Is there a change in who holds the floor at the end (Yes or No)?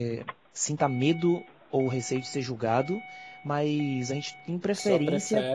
No